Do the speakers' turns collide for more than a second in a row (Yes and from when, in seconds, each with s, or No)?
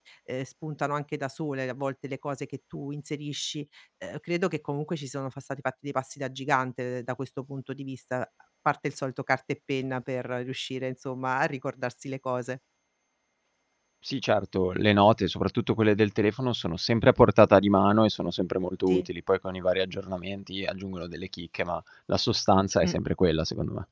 No